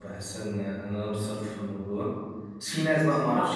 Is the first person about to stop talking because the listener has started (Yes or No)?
No